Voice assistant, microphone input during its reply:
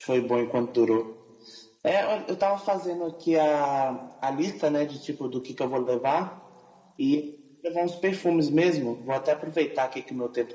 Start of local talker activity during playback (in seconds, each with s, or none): none